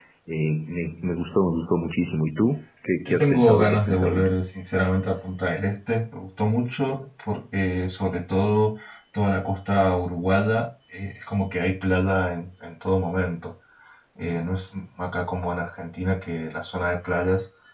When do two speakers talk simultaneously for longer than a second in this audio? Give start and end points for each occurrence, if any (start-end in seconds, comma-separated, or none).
3.0-4.3